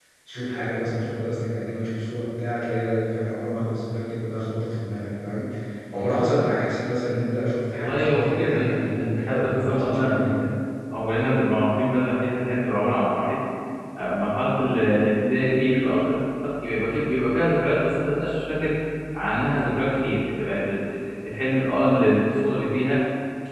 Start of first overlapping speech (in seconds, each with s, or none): 7.8 s